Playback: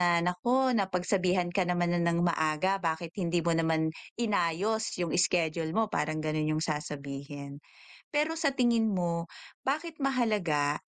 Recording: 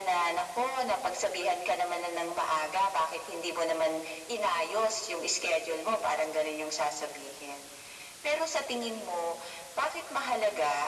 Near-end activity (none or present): none